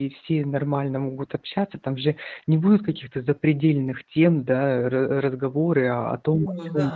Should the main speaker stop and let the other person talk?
No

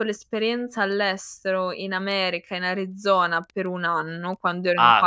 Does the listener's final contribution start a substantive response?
Yes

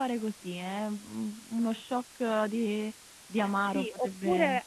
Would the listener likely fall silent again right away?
No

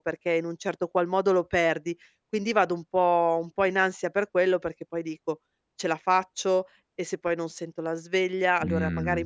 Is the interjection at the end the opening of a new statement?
No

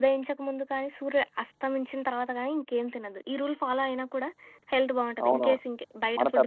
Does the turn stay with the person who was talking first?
No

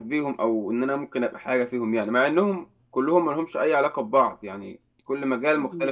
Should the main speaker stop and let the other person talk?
Yes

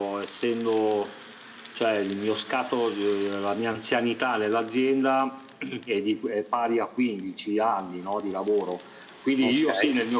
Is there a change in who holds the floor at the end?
No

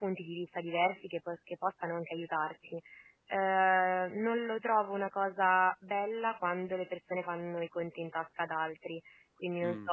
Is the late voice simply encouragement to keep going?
Yes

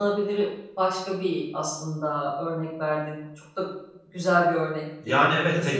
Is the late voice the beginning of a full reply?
Yes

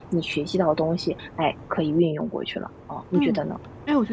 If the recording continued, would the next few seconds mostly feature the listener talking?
Yes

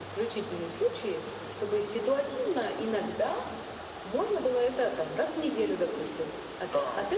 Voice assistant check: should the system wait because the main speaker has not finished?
Yes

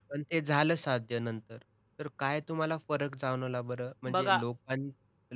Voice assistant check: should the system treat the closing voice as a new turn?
No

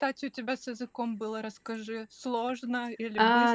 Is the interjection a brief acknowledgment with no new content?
No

